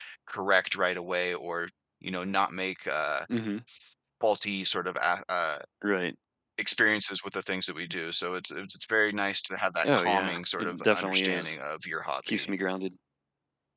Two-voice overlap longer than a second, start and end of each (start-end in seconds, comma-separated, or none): 9.8-11.6